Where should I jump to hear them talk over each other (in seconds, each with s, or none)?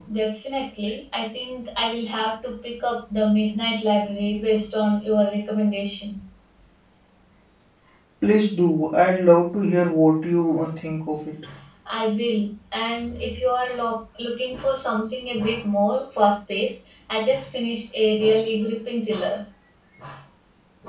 none